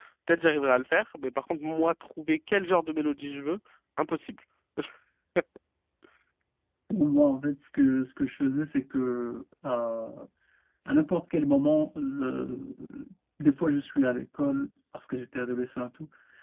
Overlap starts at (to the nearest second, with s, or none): none